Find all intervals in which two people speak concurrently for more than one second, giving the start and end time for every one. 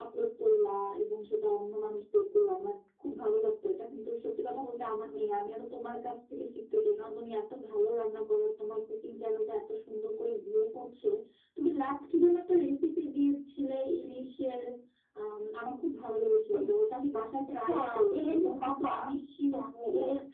17.7-18.9

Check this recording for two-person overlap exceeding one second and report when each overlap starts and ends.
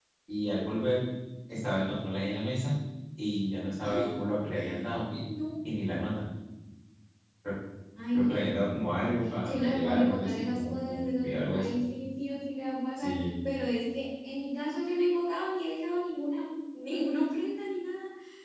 9.4-11.7

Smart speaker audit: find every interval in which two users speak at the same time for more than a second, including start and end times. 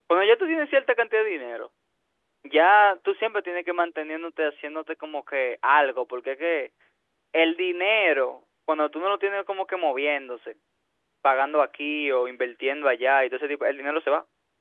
none

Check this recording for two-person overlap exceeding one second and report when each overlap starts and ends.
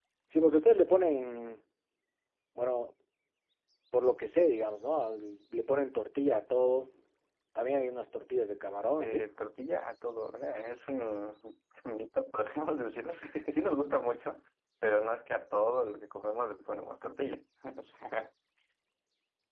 none

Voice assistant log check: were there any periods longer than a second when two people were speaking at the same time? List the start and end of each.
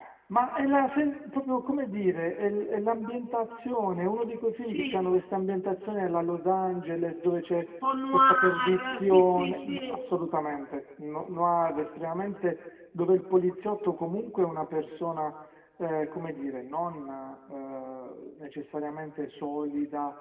8.1-9.8

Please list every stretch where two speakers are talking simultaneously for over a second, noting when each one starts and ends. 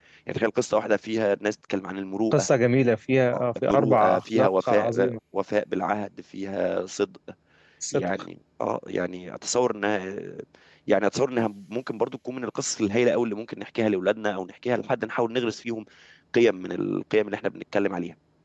3.3-5.2

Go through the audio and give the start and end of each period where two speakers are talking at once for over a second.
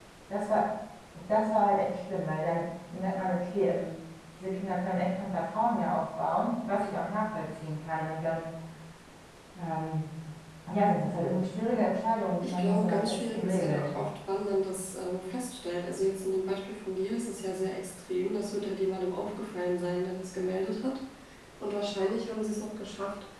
12.4-13.9

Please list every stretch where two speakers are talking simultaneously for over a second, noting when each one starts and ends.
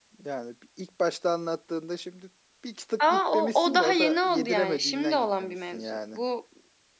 3.0-6.2

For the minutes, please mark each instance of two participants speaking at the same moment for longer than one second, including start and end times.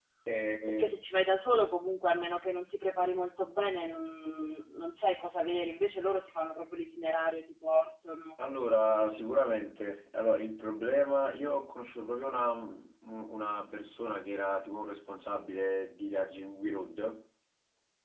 none

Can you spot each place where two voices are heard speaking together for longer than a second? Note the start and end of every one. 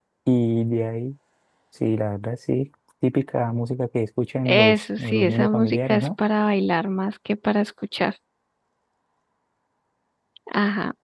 4.5-6.1

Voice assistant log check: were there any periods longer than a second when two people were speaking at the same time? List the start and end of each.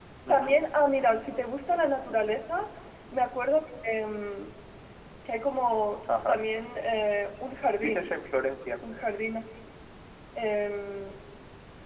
none

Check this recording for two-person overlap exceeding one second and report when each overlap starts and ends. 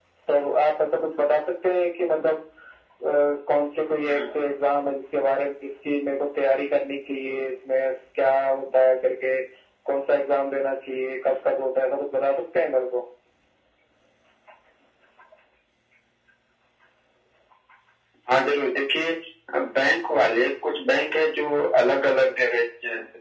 none

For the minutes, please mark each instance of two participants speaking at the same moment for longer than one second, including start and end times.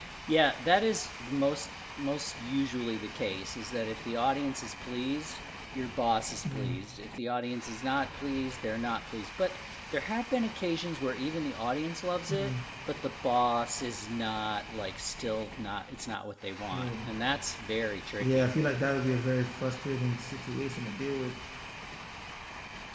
none

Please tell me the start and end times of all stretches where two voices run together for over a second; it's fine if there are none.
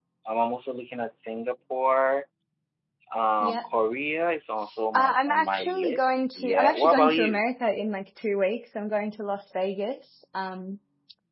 4.9-7.4

